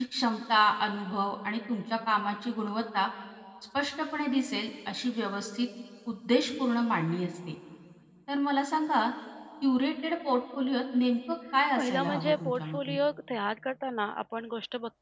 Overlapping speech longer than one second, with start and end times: 11.8-13.0

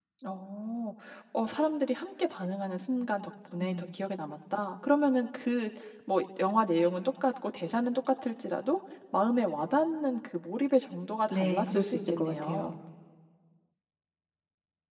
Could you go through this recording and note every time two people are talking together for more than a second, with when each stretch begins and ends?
11.3-12.7

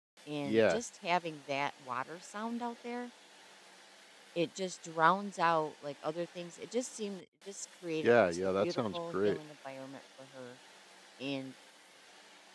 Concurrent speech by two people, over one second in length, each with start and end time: 8.0-9.4

